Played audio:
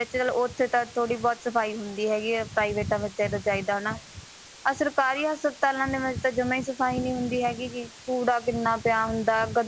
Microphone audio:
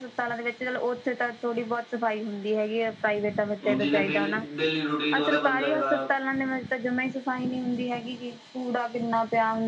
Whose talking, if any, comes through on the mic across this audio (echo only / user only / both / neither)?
both